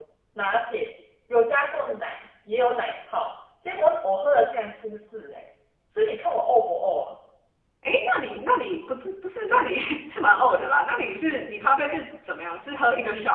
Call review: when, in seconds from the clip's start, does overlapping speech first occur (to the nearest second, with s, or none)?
none